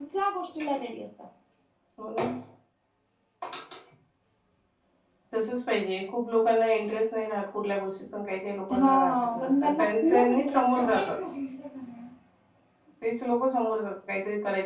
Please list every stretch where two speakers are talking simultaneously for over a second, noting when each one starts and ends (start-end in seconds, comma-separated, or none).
8.8-11.1